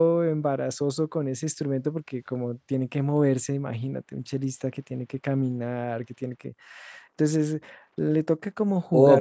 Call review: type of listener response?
taking over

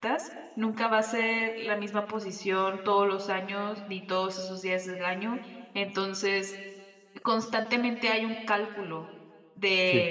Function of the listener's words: listening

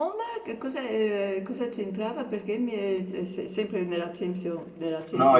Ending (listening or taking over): taking over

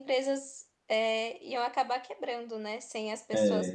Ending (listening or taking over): listening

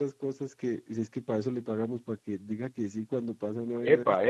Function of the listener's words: taking over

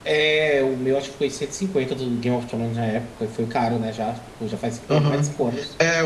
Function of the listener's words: taking over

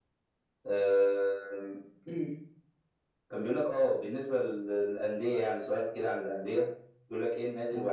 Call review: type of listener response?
listening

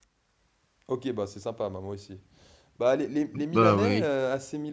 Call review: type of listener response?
listening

